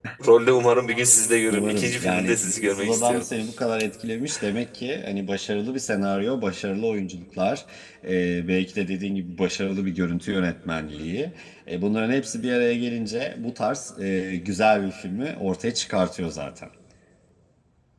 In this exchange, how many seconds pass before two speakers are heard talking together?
1.5 s

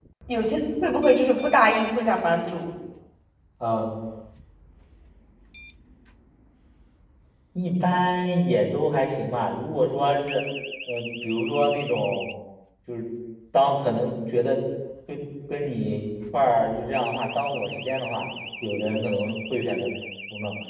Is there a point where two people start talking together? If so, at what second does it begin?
none

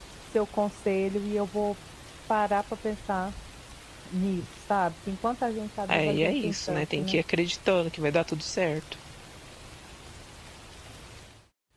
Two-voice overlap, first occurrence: 5.9 s

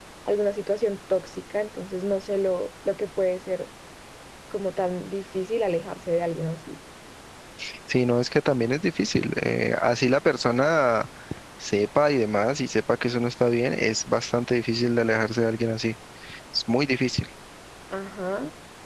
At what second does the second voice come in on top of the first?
none

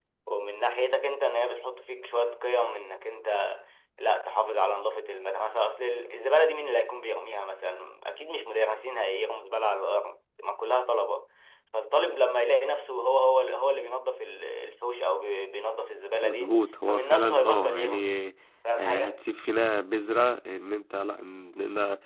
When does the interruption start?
16.2 s

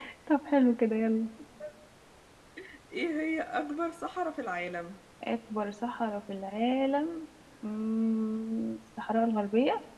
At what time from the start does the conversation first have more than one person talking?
none

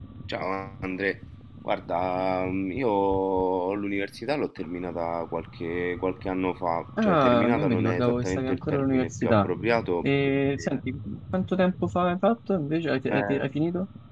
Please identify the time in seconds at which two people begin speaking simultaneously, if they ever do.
7.0 s

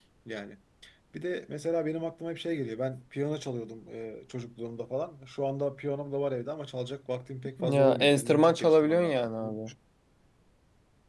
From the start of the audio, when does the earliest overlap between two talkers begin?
7.6 s

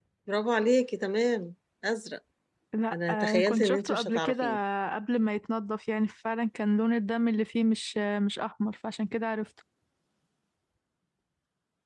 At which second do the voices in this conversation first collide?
2.9 s

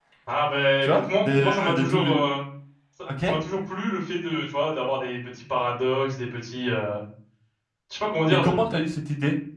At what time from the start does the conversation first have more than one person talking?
0.8 s

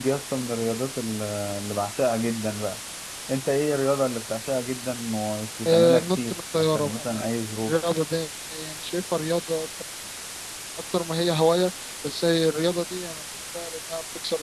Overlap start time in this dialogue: 5.7 s

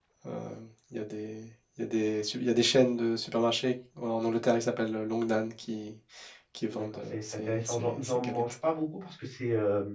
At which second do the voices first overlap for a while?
6.7 s

